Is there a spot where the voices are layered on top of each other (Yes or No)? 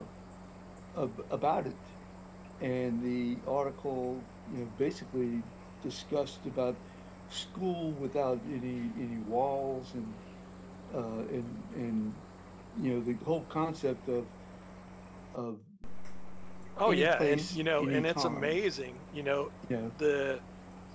Yes